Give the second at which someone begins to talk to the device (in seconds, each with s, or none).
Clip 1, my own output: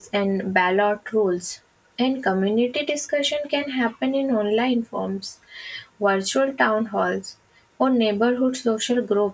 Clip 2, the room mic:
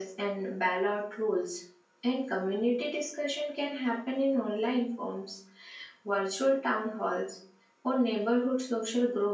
none